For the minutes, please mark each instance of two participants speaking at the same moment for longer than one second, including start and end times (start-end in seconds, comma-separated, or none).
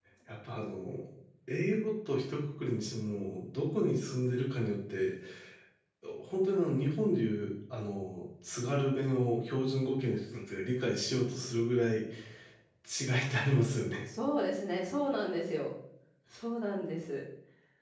none